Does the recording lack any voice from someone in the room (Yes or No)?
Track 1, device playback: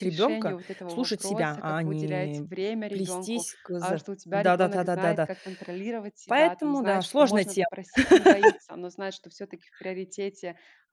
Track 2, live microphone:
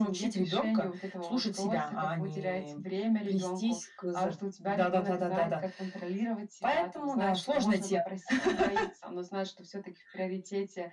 Yes